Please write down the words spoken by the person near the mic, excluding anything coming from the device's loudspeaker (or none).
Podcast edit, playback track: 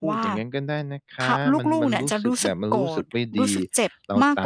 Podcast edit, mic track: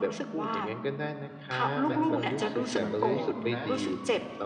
และผมขอเป็นกำลังใจให้คุณนะ